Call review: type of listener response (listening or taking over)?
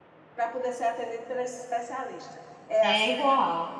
taking over